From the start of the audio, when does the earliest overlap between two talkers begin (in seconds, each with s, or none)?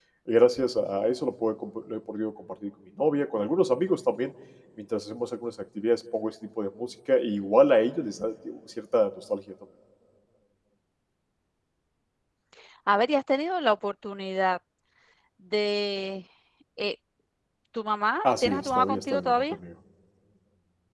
18.2 s